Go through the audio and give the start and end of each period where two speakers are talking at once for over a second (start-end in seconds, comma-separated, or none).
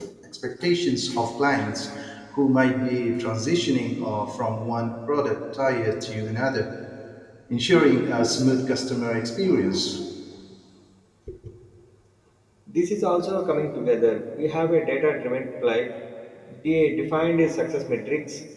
none